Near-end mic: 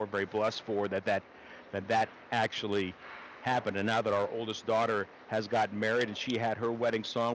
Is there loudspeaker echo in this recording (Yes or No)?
No